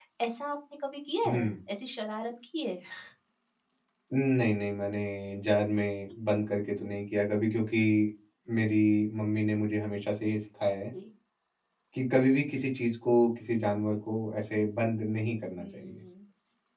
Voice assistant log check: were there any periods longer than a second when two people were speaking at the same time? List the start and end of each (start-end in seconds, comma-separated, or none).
none